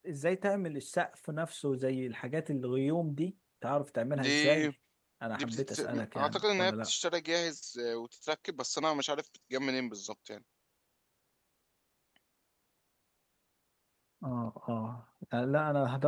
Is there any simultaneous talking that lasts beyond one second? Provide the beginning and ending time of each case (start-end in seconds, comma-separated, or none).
5.3-6.9